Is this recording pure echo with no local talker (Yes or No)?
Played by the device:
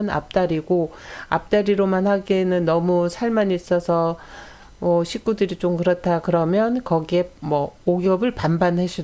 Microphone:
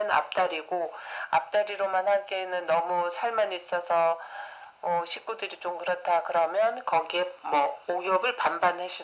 Yes